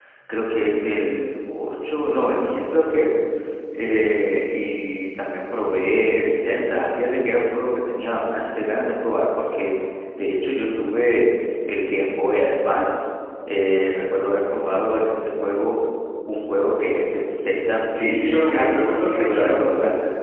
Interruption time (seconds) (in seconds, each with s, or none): 17.9 s